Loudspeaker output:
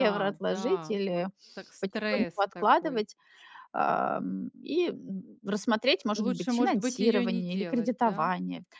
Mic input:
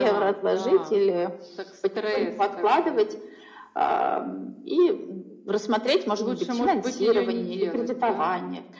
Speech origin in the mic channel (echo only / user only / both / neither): echo only